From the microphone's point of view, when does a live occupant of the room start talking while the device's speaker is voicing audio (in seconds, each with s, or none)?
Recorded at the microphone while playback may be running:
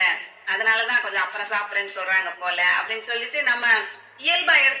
none